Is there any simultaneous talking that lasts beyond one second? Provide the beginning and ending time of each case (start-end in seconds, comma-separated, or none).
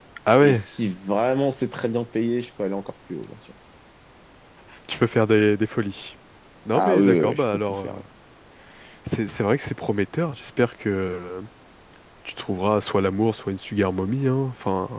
6.8-8.0